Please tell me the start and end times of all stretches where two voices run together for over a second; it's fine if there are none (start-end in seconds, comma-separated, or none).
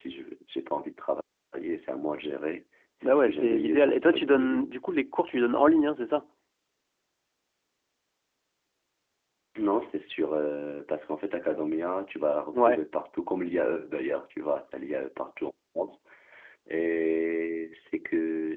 3.0-4.6